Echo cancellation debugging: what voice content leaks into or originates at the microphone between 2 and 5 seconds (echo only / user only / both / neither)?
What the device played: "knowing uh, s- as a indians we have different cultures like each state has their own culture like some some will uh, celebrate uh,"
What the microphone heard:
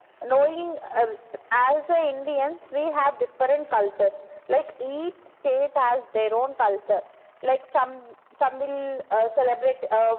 echo only